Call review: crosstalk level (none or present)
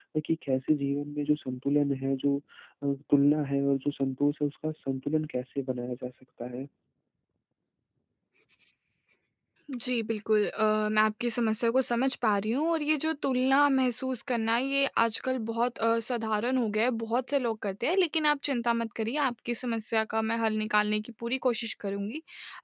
none